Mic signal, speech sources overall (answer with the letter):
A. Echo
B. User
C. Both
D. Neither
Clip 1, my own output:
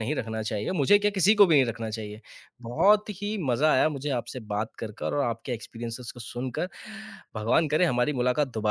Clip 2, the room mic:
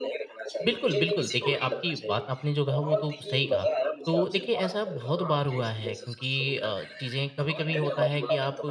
C